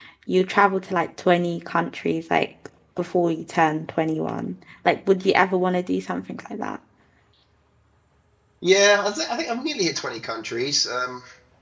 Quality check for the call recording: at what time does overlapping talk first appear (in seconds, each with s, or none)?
none